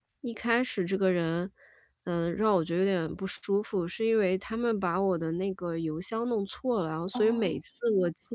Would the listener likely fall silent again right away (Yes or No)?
Yes